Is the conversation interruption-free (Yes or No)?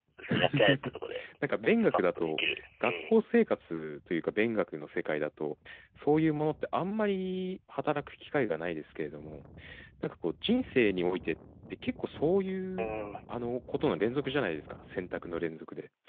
No